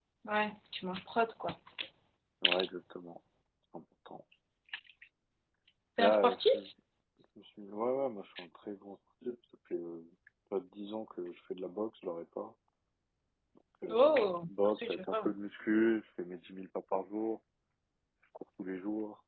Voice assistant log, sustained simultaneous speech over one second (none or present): present